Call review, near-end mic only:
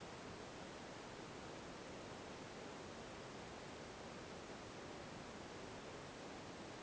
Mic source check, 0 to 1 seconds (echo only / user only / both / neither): neither